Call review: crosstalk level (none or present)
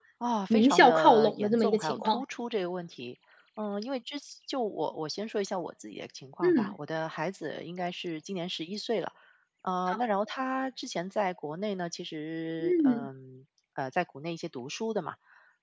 present